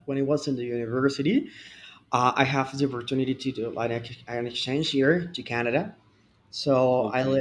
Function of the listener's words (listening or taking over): listening